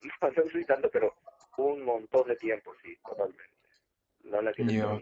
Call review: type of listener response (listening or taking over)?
listening